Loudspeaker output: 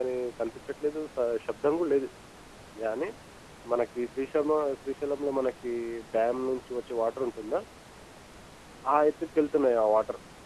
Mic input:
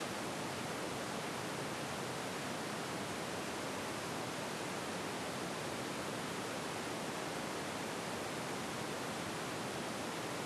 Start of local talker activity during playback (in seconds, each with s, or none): none